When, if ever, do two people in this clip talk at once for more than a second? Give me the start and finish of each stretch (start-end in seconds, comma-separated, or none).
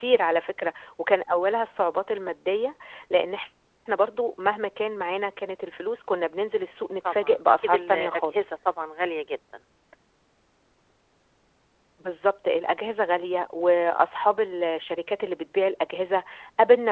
7.0-8.4